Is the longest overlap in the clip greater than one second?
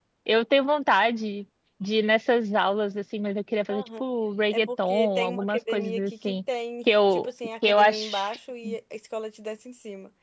Yes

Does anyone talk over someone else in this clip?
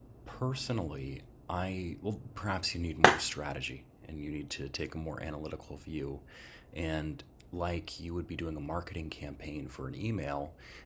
No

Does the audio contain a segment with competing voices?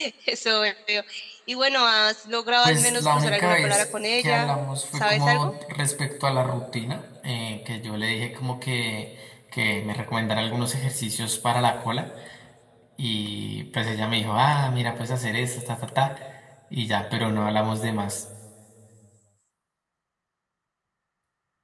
Yes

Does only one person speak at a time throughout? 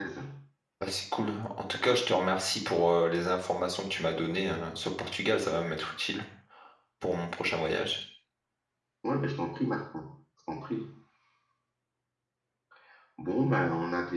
Yes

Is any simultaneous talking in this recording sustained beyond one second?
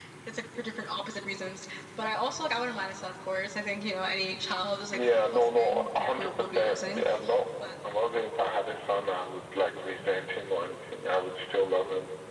Yes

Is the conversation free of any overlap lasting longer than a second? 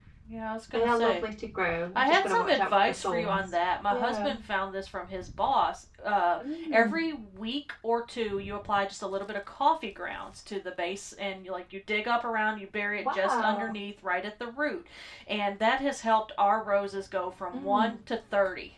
No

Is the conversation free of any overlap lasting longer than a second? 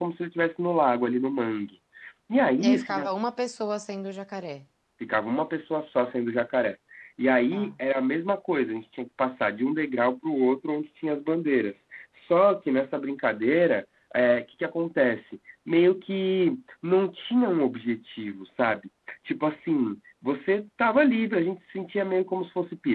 Yes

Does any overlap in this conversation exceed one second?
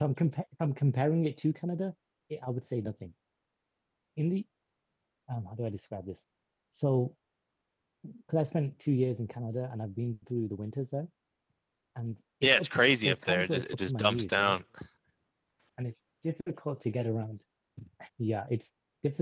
Yes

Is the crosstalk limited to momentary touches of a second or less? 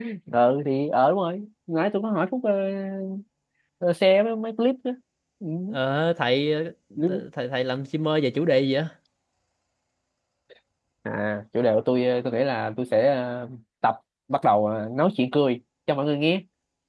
Yes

